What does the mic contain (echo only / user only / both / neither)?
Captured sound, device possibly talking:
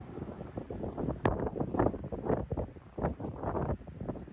neither